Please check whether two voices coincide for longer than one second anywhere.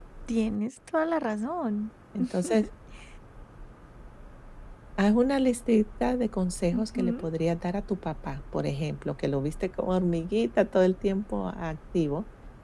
No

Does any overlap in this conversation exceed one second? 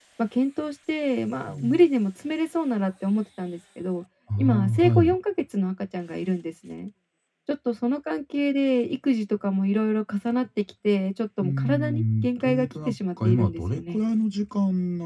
Yes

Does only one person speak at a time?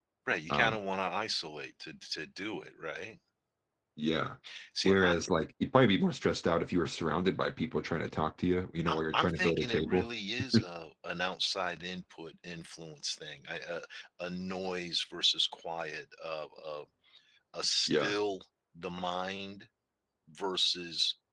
No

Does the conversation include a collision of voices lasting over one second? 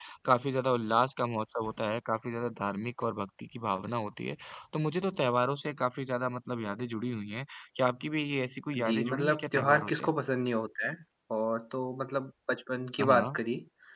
Yes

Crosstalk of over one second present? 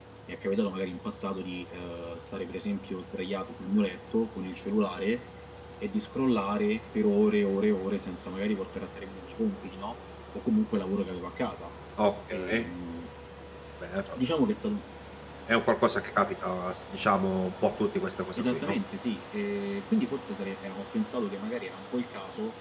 No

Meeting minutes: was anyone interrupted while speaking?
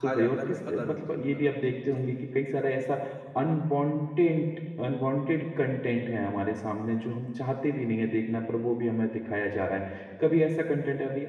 Yes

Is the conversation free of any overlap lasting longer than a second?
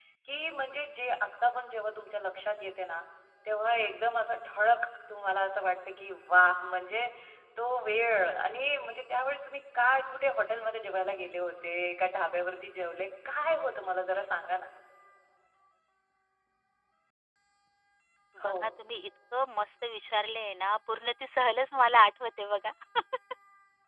Yes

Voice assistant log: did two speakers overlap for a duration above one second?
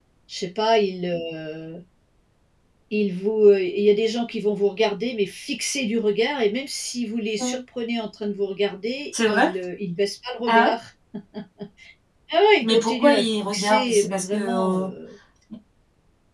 Yes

